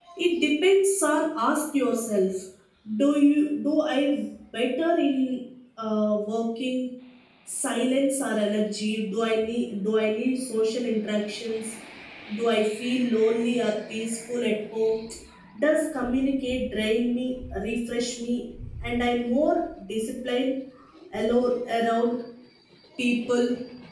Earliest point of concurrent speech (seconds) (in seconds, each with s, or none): none